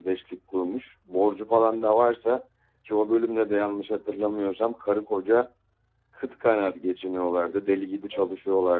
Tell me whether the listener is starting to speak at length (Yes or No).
No